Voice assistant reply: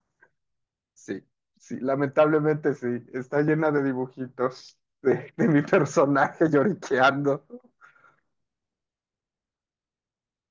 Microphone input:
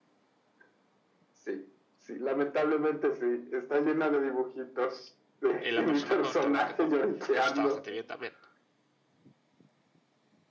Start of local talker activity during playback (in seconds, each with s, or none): 5.6 s